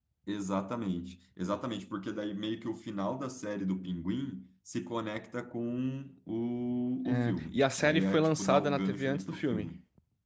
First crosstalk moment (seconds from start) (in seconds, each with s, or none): 7.0 s